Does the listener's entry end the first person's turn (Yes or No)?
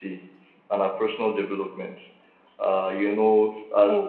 No